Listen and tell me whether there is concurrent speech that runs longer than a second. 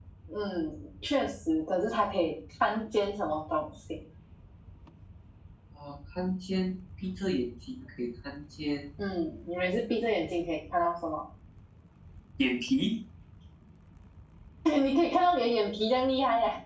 No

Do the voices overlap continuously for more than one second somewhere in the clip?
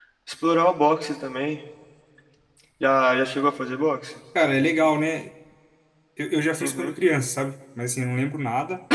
No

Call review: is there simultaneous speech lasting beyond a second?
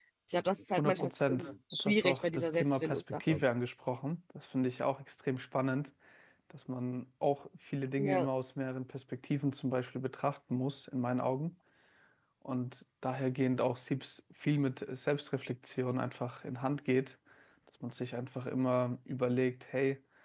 Yes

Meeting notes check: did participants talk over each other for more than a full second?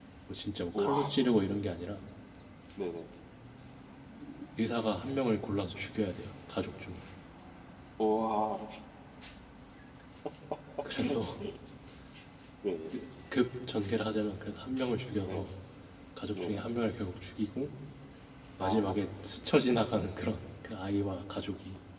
No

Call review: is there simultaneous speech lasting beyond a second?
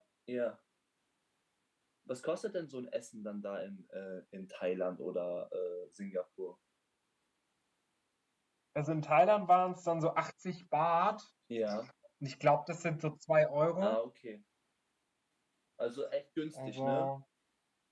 No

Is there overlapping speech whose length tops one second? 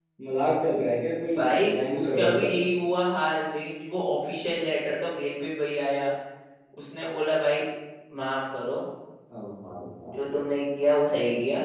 Yes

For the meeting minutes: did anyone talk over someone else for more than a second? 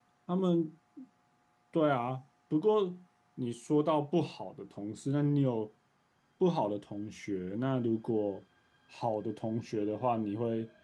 No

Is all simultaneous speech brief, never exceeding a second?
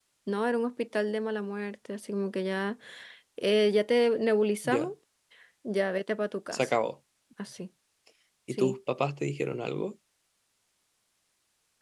Yes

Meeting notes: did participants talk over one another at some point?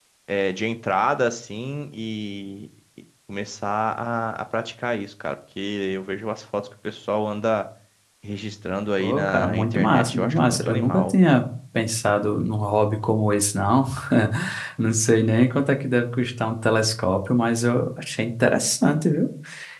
Yes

